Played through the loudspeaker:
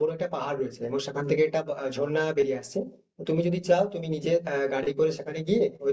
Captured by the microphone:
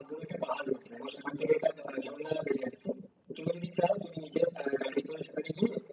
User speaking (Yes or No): No